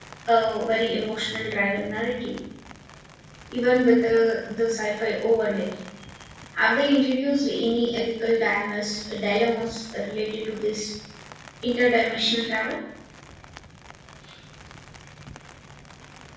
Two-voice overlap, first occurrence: none

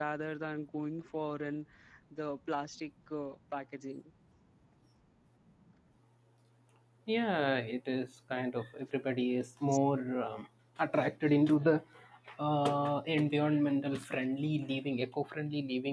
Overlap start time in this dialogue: none

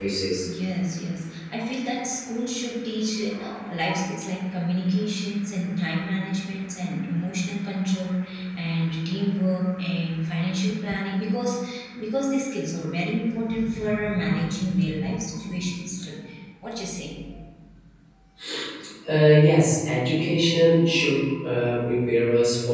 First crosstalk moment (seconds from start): none

